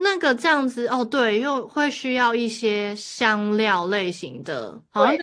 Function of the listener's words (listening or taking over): taking over